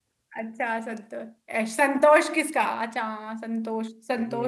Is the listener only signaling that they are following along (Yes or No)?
Yes